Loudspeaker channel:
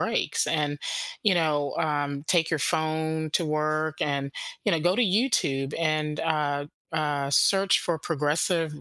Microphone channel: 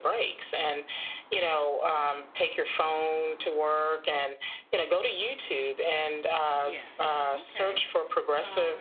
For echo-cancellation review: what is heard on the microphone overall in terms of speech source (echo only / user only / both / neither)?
both